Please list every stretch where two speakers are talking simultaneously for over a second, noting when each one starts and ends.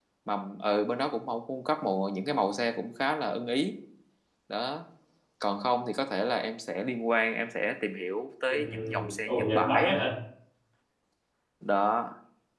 8.5-9.9

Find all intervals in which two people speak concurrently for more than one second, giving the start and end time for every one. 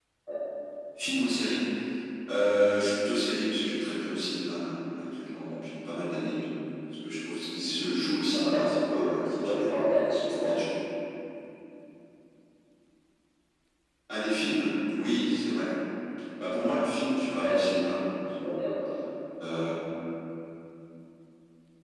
8.3-9.7

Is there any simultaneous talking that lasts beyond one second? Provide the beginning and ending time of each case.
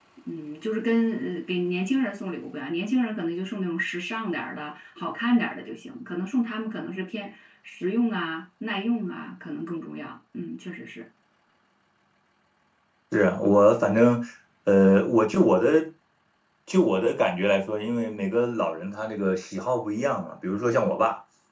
none

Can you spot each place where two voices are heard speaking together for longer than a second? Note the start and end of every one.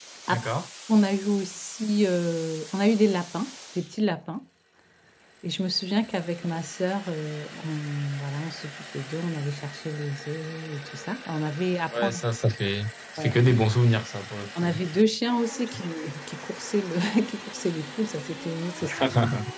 none

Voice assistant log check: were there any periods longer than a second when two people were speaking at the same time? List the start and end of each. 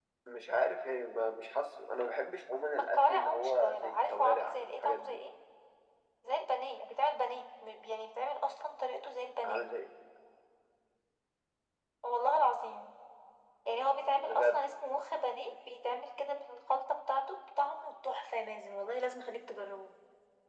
2.8-5.2

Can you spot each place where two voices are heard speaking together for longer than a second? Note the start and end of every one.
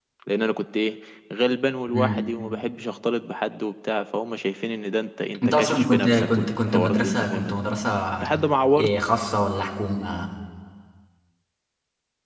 5.4-7.6

